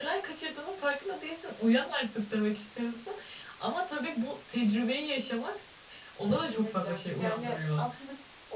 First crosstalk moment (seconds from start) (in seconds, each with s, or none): 6.3 s